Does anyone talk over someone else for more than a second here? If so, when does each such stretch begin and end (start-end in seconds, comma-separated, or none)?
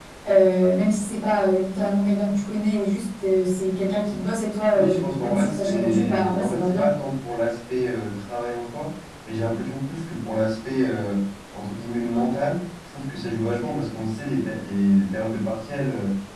4.7-6.9